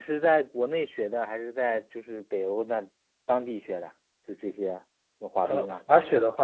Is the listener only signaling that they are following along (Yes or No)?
No